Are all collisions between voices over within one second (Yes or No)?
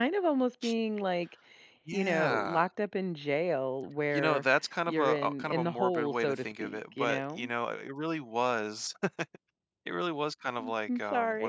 No